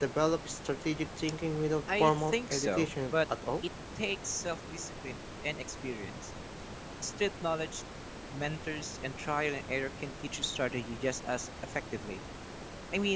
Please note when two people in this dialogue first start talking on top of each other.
1.9 s

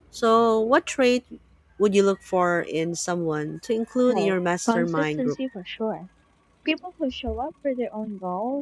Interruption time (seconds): 4.1 s

